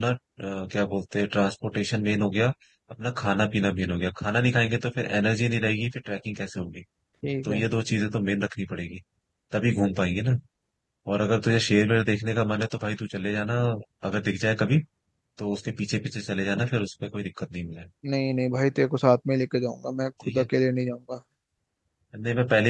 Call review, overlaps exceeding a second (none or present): none